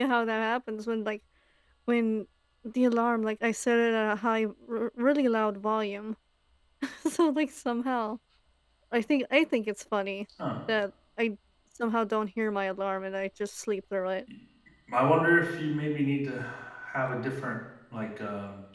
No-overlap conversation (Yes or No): Yes